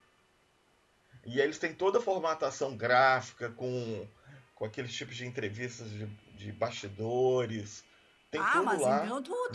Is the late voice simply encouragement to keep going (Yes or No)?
No